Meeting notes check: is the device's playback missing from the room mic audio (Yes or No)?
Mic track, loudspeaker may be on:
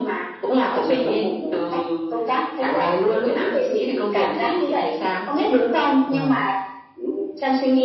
No